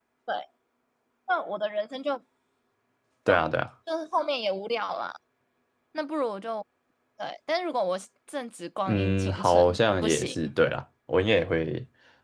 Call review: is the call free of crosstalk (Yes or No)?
No